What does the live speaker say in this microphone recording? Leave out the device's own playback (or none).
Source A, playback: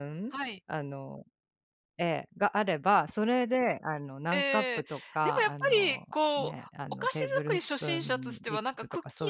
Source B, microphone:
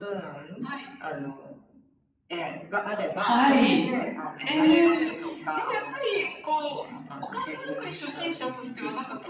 はい。ええ。